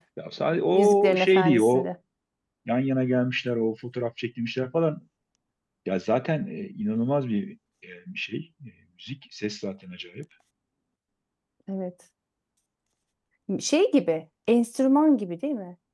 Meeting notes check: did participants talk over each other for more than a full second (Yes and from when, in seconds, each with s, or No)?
Yes, from 0.7 s